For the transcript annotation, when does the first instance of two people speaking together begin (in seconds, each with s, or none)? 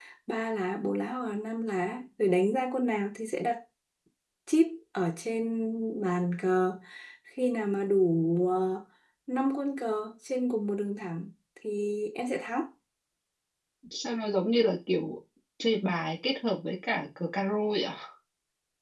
none